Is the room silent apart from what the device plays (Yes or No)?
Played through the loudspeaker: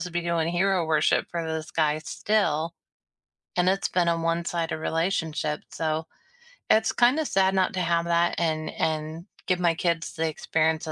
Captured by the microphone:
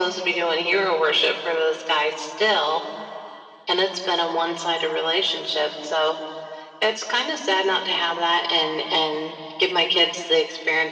Yes